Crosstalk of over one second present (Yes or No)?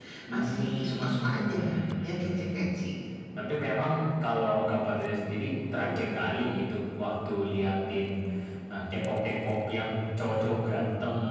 Yes